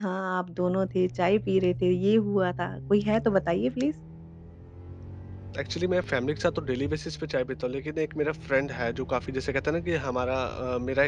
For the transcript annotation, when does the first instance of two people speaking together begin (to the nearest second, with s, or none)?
none